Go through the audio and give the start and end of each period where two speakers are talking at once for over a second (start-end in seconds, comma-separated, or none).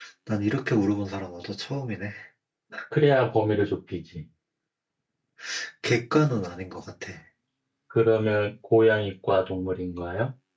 none